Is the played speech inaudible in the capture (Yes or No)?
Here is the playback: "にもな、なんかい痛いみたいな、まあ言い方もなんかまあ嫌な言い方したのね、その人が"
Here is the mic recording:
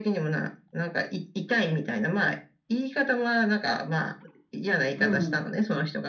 No